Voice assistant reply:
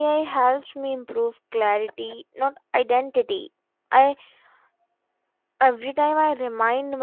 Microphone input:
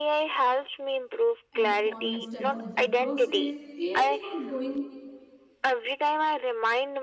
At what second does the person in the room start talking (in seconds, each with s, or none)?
1.5 s